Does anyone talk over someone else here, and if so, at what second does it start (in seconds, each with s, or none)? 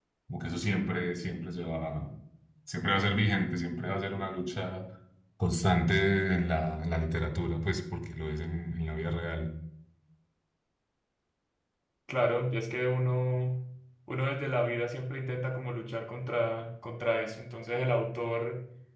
none